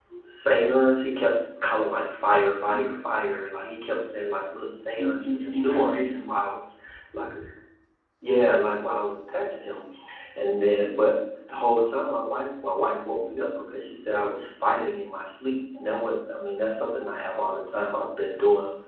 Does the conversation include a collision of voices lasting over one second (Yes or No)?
Yes